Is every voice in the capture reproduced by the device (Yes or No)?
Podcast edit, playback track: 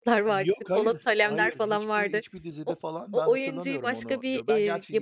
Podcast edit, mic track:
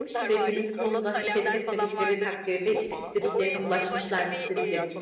No